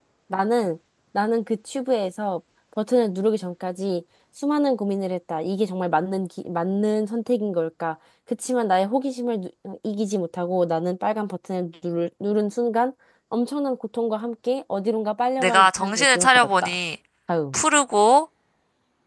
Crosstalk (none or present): present